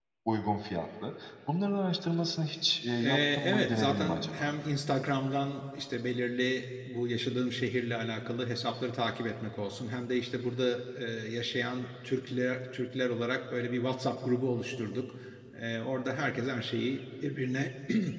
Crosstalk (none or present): present